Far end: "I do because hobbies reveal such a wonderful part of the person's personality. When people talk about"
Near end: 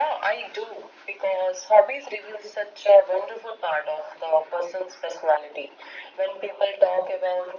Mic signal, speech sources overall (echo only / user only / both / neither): echo only